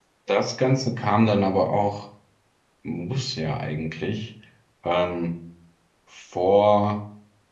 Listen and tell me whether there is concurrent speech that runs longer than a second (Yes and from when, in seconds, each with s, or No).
No